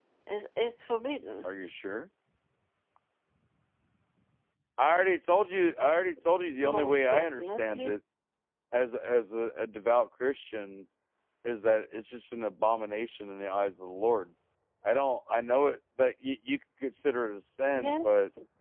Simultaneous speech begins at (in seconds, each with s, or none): 6.6 s